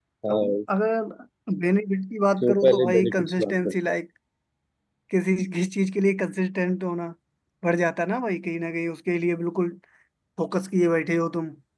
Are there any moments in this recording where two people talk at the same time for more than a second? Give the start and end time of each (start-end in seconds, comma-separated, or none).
2.4-3.7